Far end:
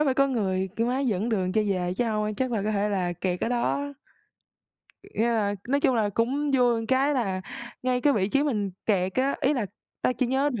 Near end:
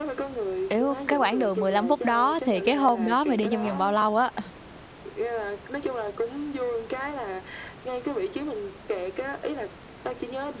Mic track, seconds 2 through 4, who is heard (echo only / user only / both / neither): both